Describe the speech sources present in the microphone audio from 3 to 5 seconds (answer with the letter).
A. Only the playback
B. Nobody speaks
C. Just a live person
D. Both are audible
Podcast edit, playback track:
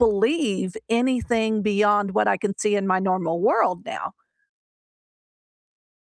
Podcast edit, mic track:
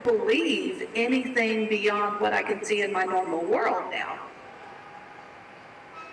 A